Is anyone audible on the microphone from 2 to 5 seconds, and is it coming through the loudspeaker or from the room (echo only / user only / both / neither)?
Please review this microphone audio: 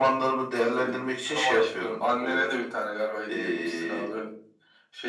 echo only